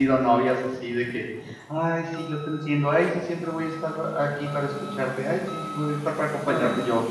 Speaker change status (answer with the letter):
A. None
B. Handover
A